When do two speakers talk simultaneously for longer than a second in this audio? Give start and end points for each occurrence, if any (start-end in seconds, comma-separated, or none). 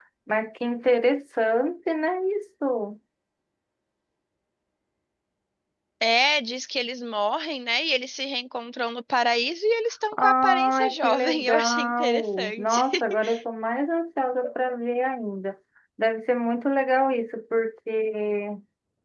10.2-12.8